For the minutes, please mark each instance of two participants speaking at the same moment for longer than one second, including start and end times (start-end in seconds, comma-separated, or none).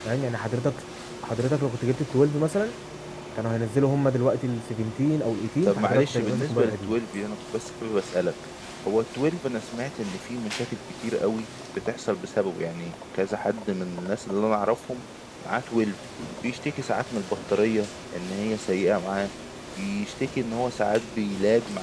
5.7-7.0